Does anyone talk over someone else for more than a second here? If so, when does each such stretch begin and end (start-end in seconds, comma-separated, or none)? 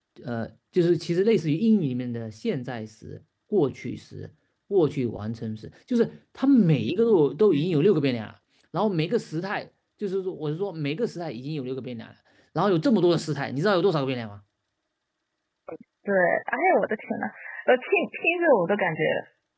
none